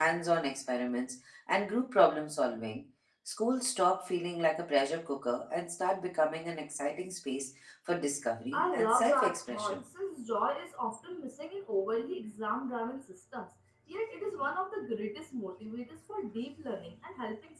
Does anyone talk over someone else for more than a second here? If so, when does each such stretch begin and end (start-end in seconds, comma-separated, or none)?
8.5-9.8